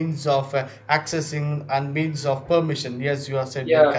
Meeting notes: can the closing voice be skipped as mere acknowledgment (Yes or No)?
No